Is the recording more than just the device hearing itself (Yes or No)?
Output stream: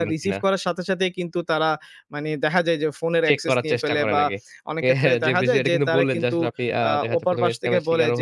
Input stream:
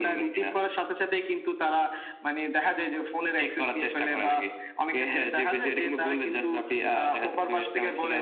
No